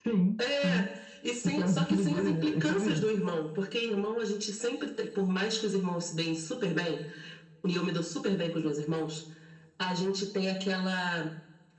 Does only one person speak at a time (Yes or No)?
No